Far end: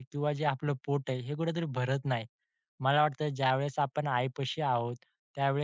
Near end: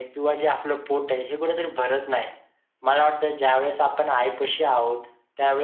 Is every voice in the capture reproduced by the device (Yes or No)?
Yes